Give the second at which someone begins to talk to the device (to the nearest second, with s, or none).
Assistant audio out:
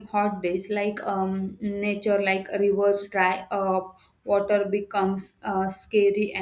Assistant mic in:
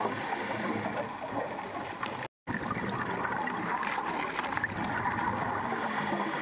none